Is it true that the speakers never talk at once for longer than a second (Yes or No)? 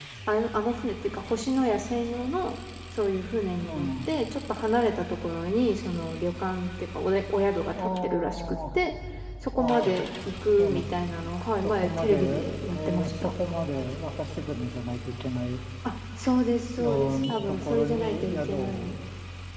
No